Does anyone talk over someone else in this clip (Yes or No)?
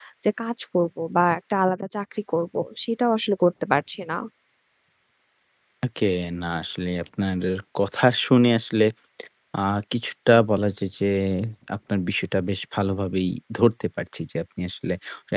No